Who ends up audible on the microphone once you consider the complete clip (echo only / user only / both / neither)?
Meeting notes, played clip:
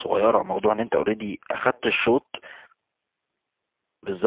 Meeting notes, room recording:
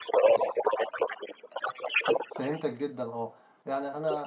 both